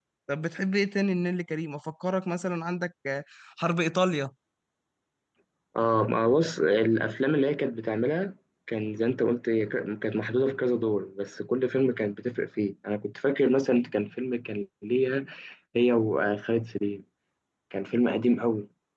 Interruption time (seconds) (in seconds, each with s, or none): none